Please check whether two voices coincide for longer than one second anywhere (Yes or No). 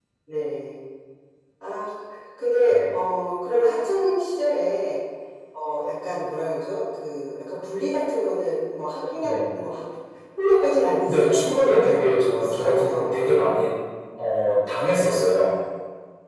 Yes